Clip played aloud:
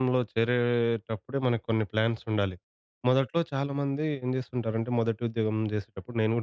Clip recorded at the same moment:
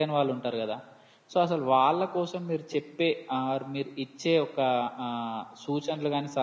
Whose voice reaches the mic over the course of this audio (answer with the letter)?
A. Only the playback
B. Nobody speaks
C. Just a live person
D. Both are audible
C